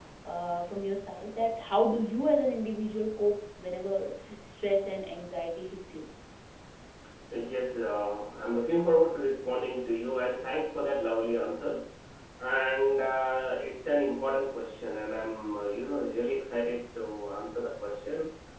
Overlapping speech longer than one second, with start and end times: none

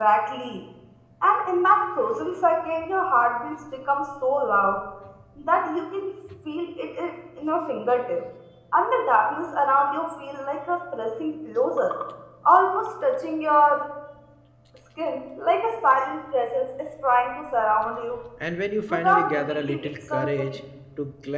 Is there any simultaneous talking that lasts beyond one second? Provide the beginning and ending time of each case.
18.9-20.6

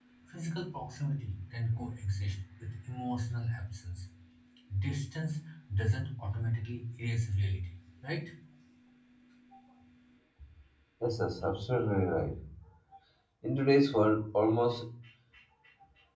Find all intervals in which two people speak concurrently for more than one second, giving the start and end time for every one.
none

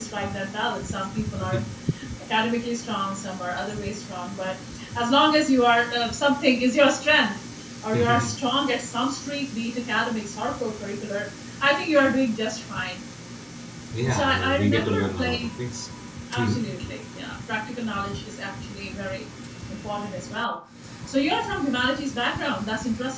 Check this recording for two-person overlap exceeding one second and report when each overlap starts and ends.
14.1-15.5

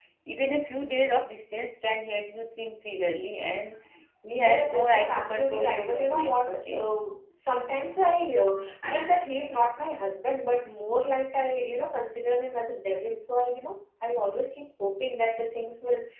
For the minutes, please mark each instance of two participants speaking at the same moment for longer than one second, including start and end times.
4.3-6.9

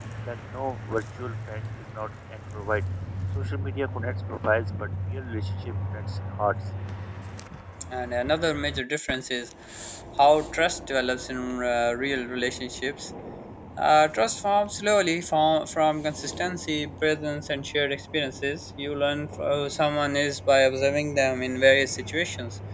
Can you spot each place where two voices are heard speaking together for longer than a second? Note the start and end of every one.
none

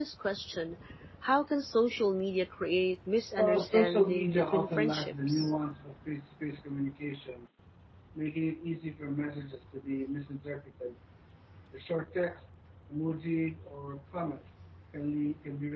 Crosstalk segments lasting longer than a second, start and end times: 3.4-5.5

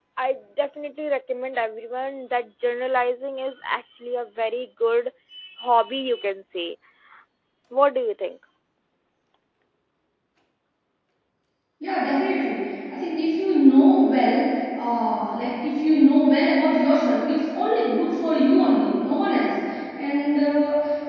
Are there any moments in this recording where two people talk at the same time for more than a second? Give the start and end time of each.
none

